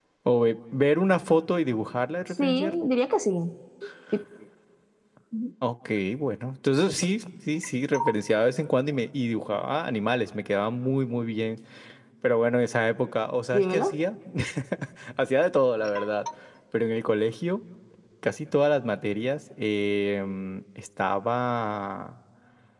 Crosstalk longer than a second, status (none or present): none